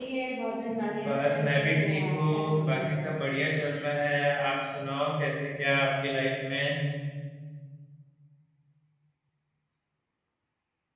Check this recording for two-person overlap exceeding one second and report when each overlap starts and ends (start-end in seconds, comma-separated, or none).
1.1-3.0